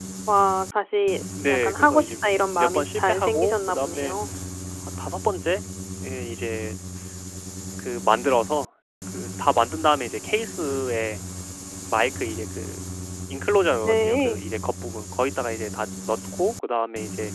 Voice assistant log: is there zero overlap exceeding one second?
No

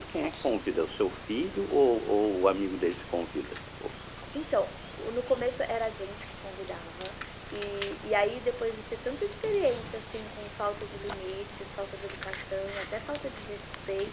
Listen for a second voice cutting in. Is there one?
No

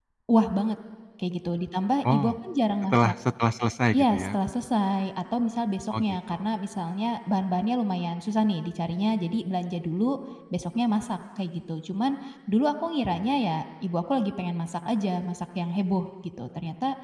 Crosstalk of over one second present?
No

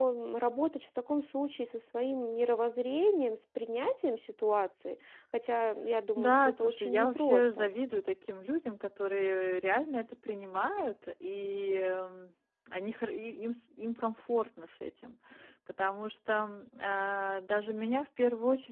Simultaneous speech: Yes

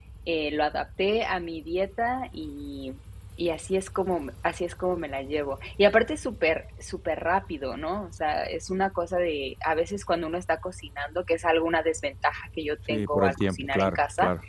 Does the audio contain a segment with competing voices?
Yes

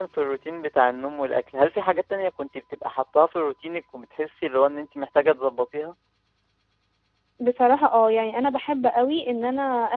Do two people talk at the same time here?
No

